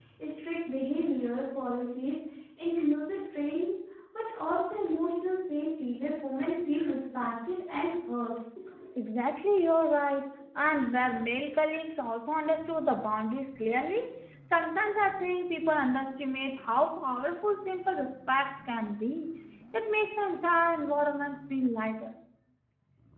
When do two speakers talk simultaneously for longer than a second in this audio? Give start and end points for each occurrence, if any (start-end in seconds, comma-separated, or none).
none